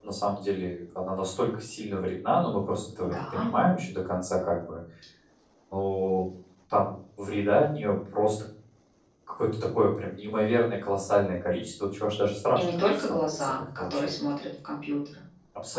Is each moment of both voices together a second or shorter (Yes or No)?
No